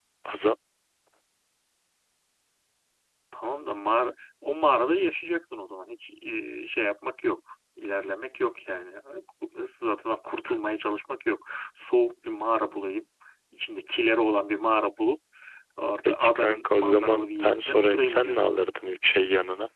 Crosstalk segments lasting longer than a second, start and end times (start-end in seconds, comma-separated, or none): 16.0-18.6